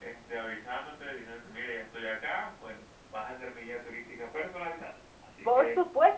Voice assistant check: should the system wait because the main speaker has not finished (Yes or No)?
No